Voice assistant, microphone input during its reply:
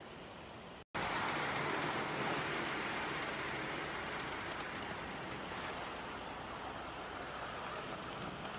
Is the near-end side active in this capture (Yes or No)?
No